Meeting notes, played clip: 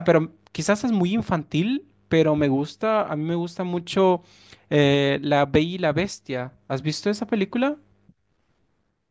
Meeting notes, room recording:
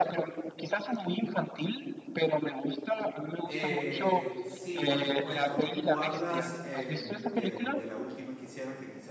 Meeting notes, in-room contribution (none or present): present